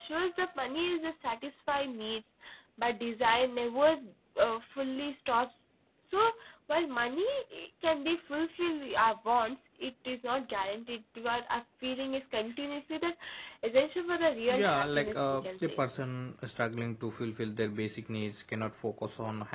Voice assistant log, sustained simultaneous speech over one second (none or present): present